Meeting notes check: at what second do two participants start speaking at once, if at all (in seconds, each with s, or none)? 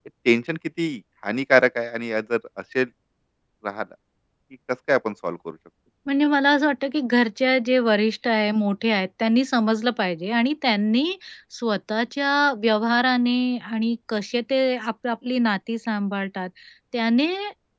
none